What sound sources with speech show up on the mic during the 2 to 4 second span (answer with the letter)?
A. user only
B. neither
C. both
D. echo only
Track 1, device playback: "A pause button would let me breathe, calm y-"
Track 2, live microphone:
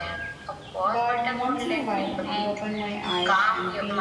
C